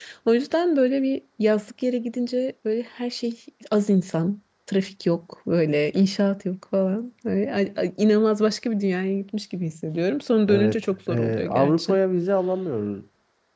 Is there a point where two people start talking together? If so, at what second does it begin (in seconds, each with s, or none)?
10.5 s